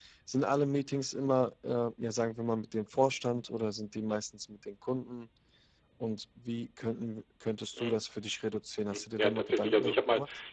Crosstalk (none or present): present